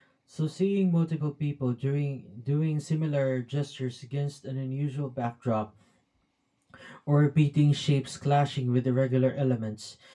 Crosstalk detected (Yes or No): No